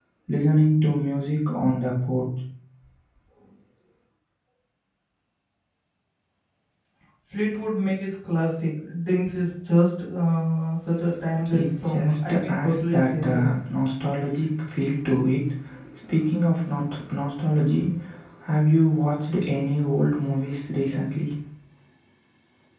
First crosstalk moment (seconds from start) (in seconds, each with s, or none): 11.4 s